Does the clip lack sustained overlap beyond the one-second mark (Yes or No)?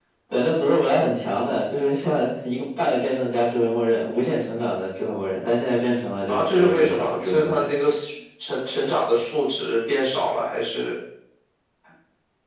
No